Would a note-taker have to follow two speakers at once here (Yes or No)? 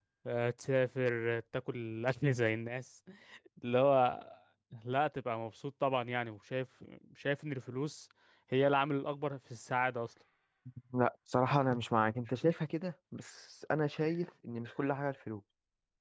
No